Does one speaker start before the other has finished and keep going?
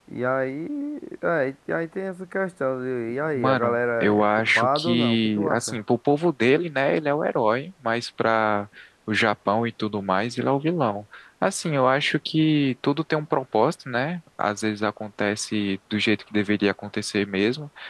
Yes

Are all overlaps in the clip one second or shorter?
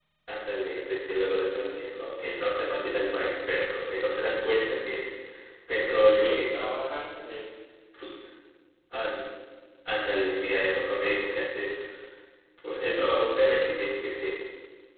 Yes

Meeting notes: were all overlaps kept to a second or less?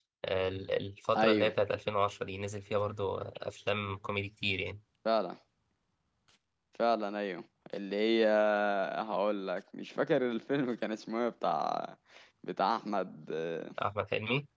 Yes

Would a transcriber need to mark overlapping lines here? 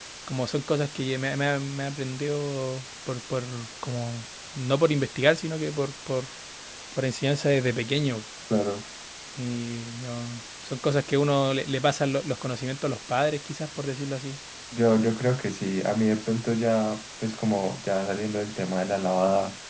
No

